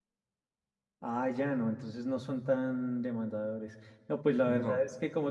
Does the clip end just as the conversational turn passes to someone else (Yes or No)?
No